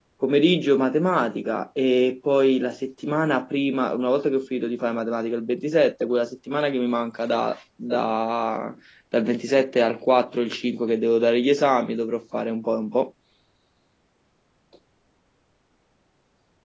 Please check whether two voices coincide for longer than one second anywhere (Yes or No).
No